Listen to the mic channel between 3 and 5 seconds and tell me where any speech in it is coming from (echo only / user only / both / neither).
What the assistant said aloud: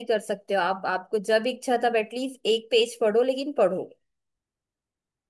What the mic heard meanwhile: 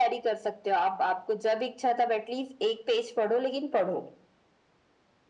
echo only